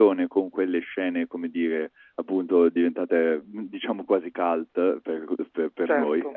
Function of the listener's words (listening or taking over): listening